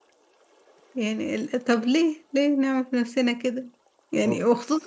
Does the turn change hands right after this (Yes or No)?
No